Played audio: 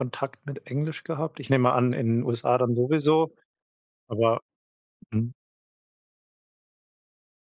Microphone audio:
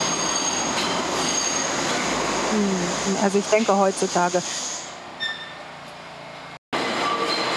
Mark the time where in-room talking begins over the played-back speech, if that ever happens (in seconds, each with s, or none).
2.5 s